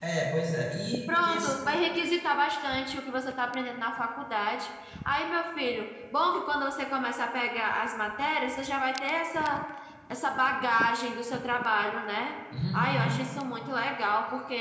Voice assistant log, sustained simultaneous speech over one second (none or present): none